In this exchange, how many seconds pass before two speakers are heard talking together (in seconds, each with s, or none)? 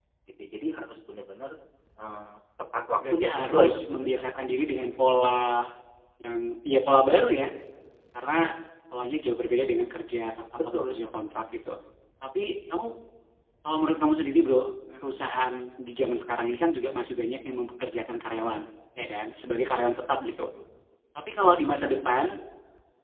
3.1 s